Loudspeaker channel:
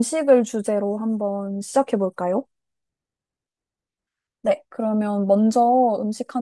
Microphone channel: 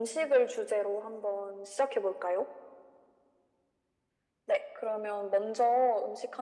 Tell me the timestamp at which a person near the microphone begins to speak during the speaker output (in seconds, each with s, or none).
none